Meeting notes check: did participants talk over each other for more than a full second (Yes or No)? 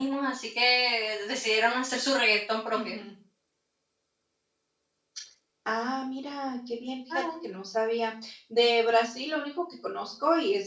No